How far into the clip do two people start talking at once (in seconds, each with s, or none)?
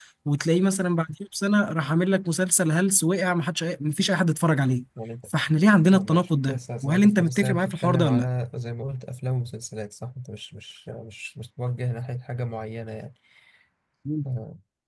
5.9 s